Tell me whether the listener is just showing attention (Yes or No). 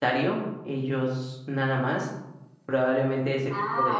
No